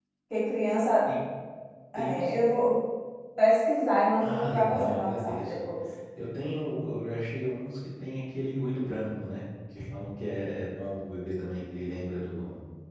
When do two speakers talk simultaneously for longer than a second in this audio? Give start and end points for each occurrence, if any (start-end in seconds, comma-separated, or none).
4.2-5.6